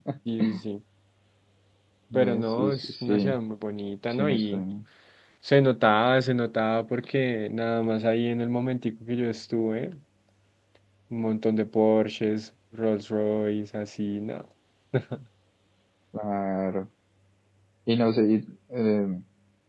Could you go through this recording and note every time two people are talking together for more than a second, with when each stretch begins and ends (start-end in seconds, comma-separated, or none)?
2.1-3.4